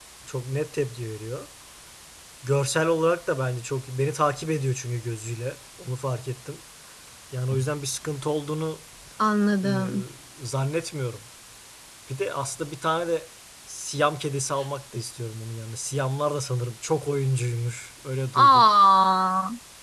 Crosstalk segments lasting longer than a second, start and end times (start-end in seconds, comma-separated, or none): none